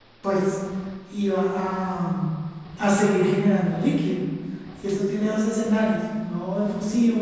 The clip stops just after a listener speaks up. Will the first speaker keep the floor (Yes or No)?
Yes